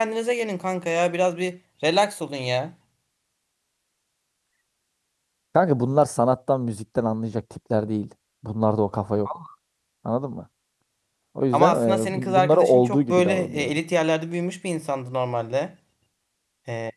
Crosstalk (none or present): present